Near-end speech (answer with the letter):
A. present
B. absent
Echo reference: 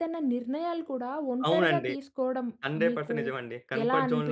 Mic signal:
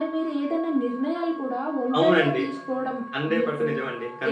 B